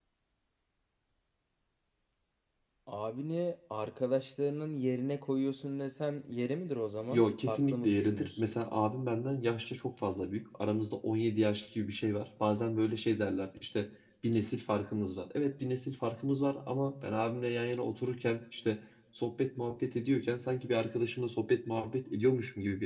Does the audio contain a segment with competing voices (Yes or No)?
Yes